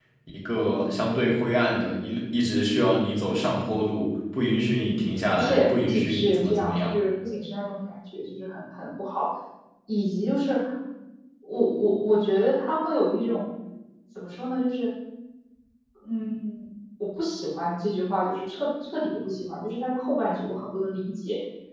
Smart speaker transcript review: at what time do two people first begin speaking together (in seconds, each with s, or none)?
5.3 s